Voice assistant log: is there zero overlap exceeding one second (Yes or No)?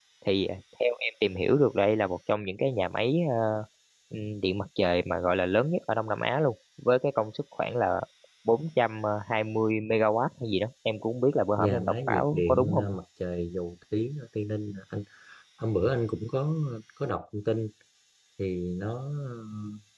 No